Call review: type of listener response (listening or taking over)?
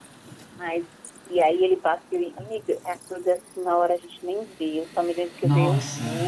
listening